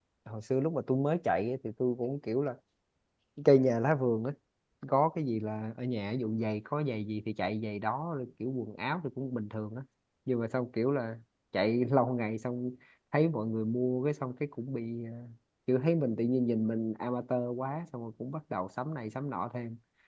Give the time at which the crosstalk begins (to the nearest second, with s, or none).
none